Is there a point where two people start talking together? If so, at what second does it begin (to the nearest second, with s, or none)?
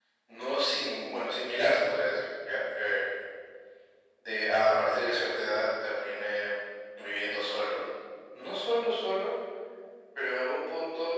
none